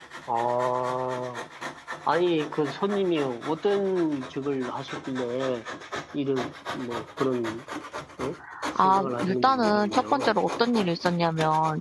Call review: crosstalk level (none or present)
present